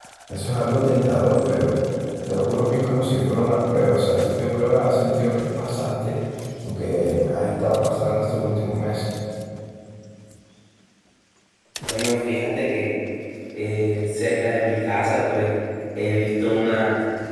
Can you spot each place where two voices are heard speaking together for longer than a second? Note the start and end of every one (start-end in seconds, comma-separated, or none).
none